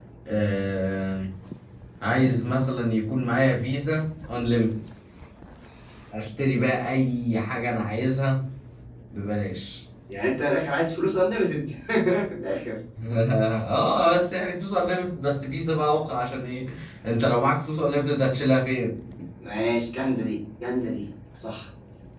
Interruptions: none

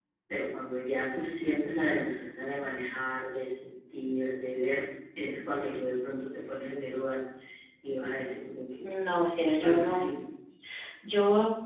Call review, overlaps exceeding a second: none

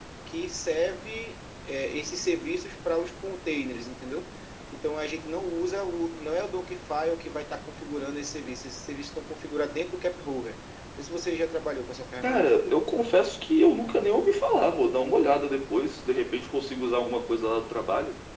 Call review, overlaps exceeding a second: none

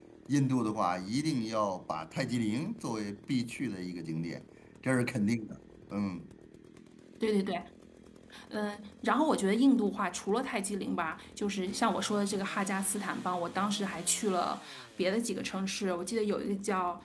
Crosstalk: none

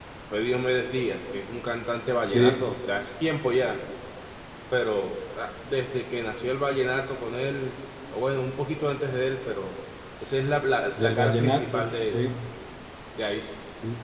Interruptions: present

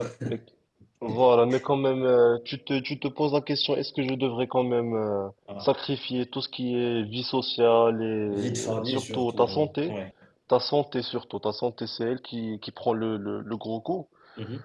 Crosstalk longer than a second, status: present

